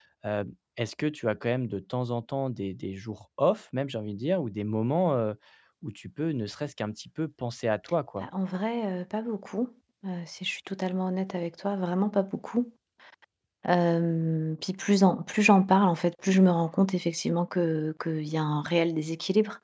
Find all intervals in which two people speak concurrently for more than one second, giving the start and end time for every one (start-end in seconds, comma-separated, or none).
none